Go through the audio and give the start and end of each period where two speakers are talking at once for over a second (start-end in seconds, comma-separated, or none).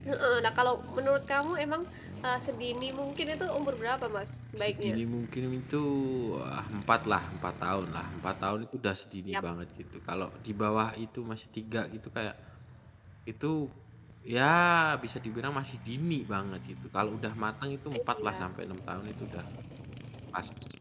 none